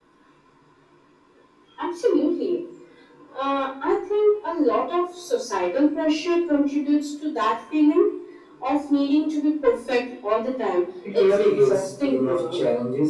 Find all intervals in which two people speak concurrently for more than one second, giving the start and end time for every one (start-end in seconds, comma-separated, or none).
11.2-12.6